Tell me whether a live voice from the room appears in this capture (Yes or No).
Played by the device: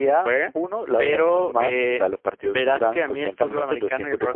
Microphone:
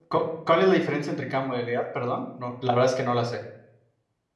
Yes